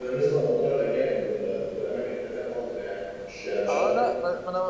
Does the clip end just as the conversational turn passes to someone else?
Yes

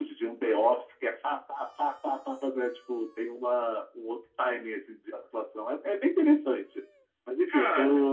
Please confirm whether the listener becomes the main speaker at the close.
No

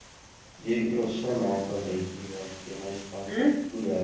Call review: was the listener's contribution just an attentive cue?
No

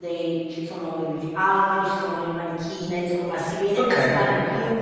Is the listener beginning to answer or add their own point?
No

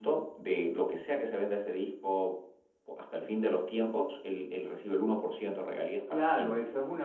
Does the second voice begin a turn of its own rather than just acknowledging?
Yes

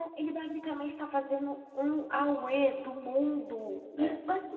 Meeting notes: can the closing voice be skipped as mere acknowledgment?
Yes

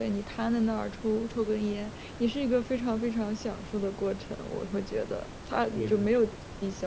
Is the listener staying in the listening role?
Yes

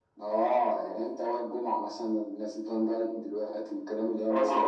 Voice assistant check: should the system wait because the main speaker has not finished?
No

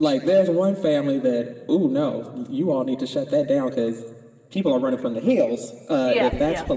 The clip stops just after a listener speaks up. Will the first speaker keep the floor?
Yes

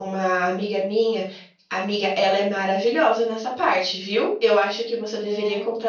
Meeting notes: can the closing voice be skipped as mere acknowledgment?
Yes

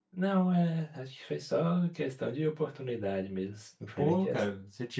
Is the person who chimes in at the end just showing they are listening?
No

